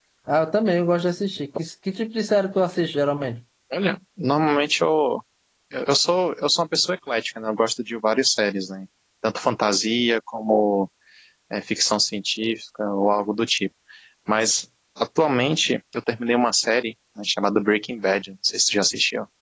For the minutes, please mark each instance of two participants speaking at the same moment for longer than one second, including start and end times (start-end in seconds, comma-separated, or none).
none